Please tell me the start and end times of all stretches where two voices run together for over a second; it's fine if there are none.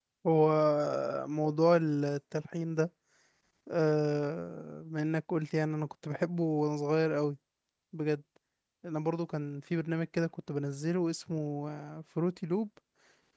none

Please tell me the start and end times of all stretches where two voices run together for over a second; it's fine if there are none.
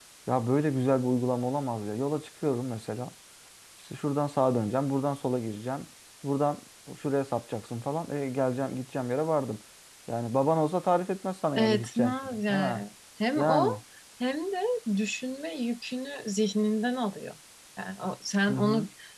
11.6-12.8

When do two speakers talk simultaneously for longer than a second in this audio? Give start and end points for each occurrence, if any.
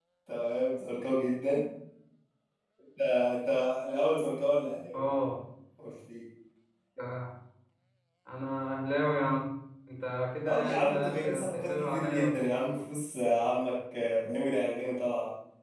10.4-12.6

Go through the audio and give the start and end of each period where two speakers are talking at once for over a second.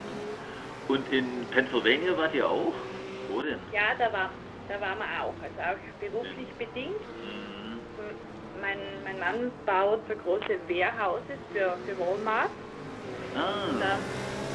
none

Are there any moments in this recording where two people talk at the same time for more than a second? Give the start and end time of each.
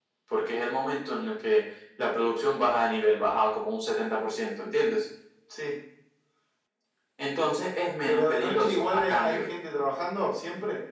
8.1-9.4

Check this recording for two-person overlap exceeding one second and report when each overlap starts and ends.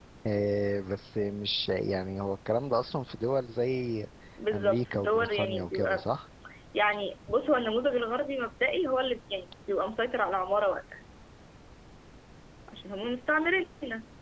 4.5-6.0

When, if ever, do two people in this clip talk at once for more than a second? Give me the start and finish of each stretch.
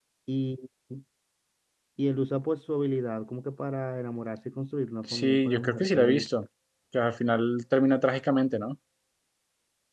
5.0-6.3

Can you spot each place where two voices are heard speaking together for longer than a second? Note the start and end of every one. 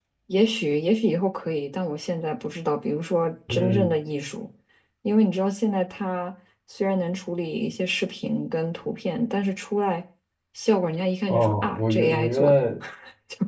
11.3-12.5

